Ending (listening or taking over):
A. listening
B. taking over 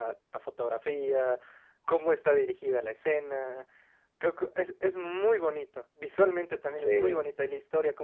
A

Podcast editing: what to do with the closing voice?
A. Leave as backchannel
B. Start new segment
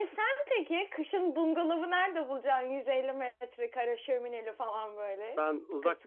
B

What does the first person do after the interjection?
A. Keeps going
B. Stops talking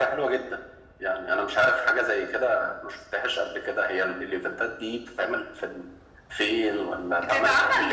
B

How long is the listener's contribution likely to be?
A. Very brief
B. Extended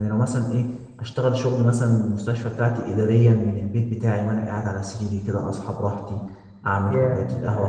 A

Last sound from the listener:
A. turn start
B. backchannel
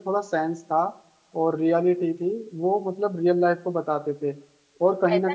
A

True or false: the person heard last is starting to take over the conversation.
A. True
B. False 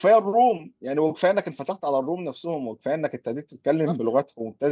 B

